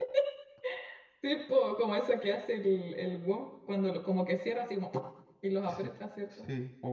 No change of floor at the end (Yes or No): No